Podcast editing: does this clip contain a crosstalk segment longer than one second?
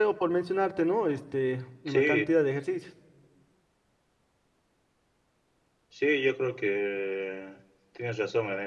No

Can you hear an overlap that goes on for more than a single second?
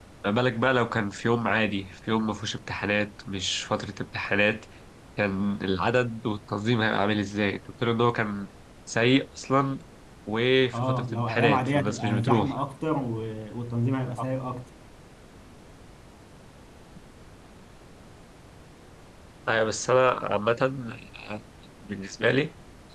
Yes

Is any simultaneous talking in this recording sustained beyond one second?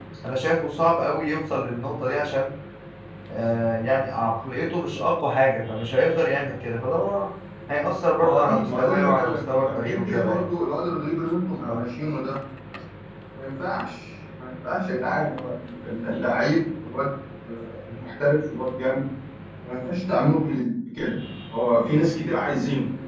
Yes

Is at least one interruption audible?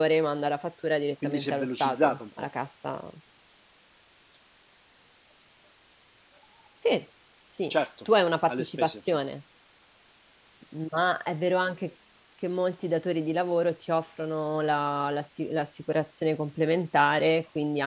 Yes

